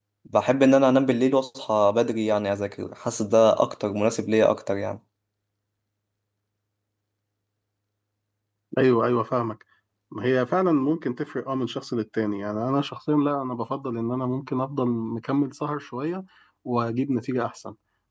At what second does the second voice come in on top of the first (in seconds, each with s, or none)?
none